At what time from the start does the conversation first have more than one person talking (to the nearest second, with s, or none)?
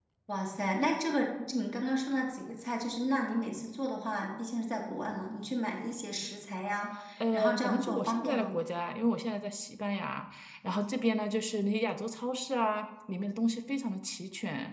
7 s